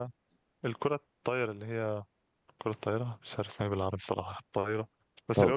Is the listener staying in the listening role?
Yes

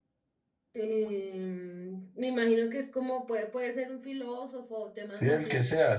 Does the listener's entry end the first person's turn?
Yes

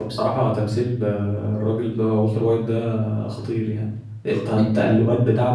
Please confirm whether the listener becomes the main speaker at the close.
No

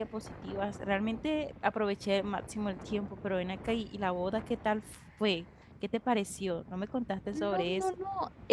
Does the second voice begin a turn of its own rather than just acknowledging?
Yes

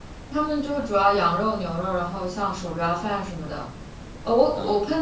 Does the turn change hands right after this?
No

